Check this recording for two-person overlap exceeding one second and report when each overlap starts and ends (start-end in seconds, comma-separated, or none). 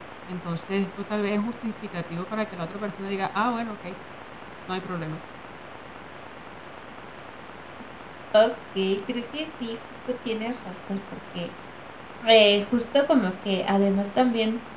none